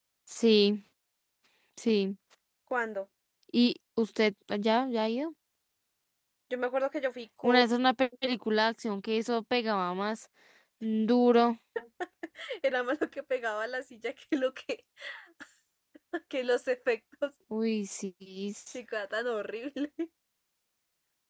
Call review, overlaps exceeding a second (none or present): none